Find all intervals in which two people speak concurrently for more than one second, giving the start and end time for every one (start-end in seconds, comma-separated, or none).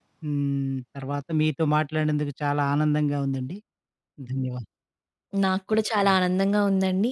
none